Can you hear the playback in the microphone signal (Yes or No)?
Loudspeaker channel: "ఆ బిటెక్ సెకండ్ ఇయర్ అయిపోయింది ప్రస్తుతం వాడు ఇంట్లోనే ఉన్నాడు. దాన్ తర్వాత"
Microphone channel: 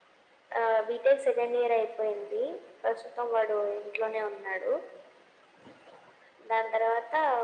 Yes